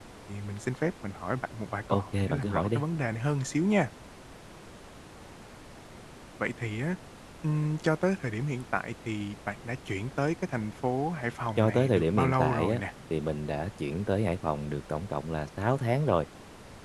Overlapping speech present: Yes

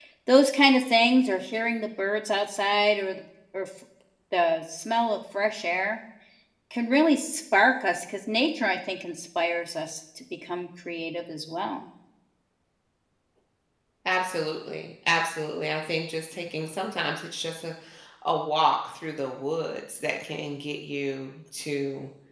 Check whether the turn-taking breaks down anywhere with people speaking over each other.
No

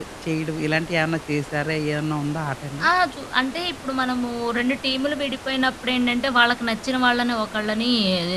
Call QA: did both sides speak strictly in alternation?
Yes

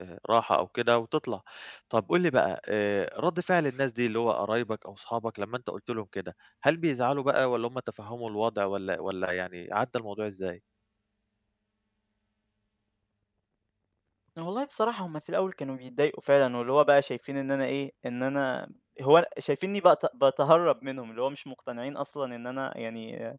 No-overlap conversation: Yes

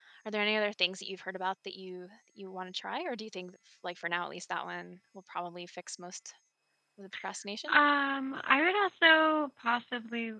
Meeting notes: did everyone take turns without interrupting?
Yes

